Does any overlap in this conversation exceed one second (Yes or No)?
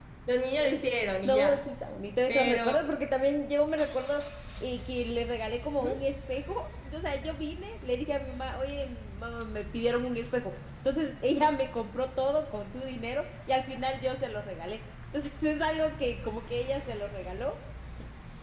No